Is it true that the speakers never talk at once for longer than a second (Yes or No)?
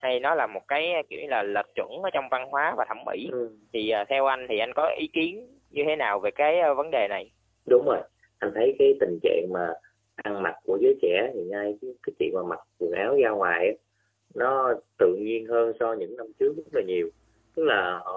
Yes